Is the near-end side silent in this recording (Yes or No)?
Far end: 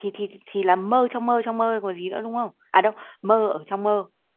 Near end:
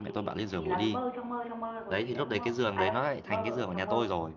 No